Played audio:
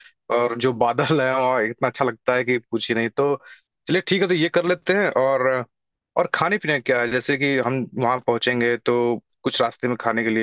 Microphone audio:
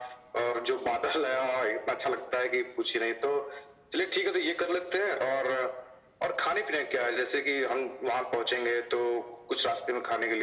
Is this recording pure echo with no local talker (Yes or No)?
Yes